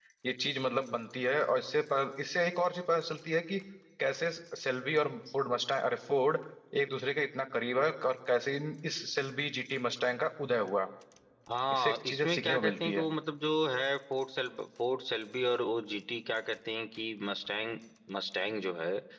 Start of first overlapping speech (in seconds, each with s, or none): 11.7 s